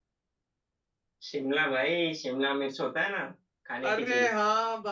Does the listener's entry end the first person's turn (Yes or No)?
Yes